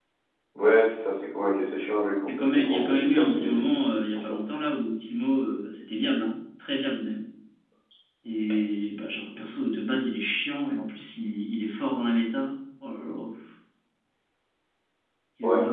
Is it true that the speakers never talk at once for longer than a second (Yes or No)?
No